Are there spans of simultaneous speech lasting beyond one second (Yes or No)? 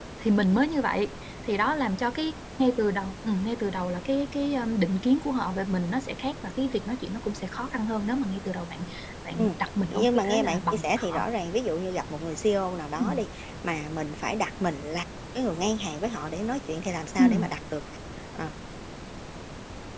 Yes